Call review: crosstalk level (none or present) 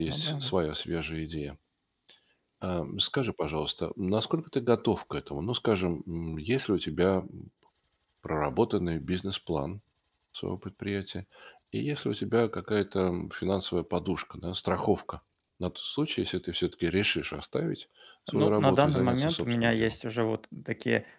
present